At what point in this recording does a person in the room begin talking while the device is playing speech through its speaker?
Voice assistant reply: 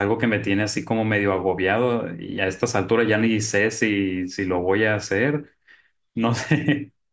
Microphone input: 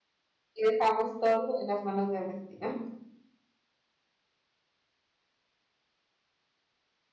1 s

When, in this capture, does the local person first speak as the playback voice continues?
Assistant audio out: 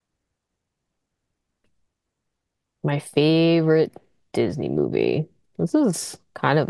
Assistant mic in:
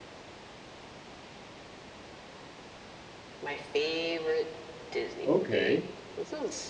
5 s

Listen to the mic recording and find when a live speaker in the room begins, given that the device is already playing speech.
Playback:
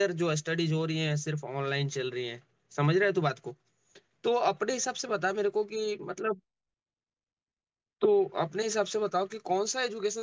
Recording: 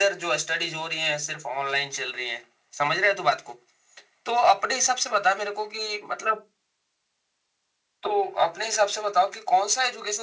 none

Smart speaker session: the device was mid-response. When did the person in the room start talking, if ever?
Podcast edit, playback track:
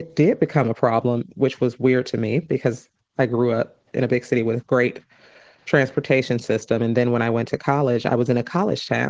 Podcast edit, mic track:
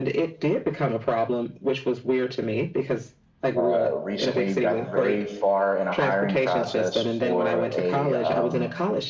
4 s

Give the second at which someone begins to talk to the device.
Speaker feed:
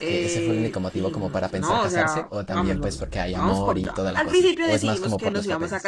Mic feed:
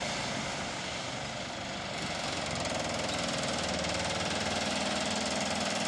none

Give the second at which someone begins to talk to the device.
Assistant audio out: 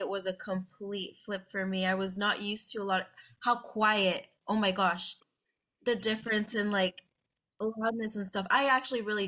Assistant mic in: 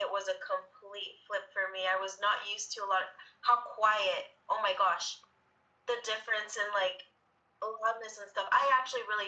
none

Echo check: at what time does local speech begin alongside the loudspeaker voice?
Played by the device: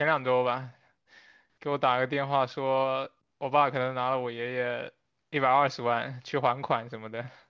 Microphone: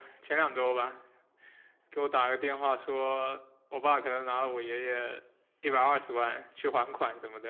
none

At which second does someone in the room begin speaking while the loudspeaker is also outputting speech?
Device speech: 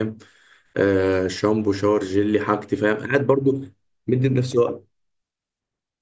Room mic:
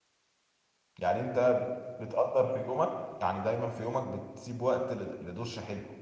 1 s

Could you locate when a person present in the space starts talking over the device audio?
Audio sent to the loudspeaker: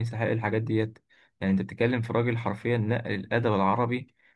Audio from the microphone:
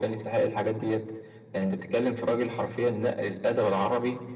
none

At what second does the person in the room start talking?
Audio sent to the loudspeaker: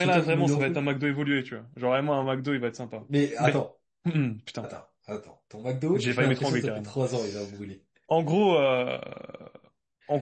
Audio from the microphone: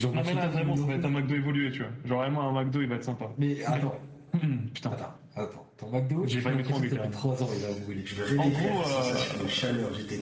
8 s

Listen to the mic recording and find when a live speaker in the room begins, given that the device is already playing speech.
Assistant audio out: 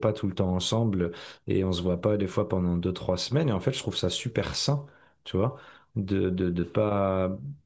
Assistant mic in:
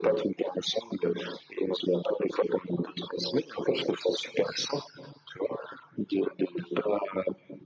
none

